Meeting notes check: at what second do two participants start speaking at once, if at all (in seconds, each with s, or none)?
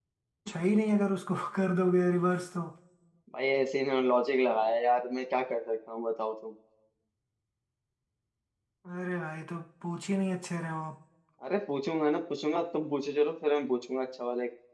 none